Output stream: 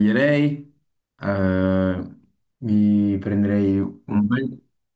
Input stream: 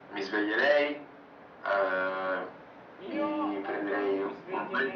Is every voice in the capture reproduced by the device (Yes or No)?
No